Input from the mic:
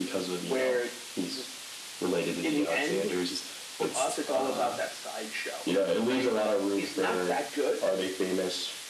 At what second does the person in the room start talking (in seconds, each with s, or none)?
none